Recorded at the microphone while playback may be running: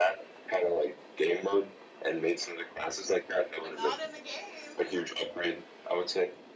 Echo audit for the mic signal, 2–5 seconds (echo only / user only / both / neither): both